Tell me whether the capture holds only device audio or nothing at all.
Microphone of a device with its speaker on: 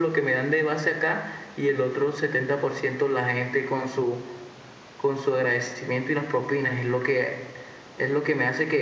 Yes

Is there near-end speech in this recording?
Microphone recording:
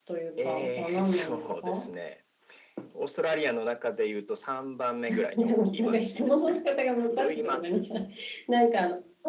Yes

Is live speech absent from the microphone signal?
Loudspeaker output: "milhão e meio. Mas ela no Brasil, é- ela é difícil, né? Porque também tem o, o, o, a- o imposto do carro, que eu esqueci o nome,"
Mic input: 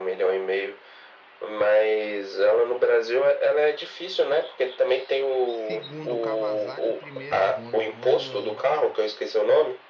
No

